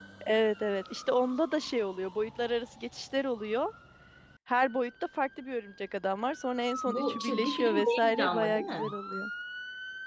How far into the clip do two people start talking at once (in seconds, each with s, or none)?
6.9 s